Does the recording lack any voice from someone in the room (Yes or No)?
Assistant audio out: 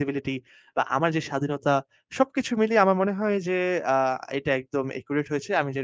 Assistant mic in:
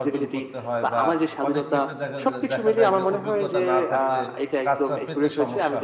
No